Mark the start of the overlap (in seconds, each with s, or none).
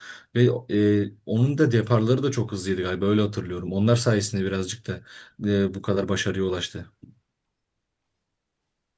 none